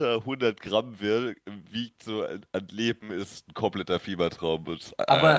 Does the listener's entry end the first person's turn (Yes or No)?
Yes